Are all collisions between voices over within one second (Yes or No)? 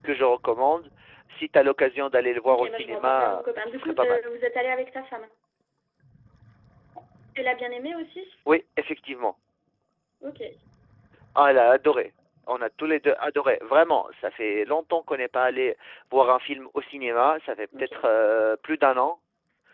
No